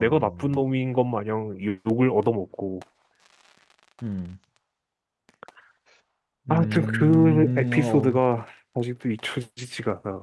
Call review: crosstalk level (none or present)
present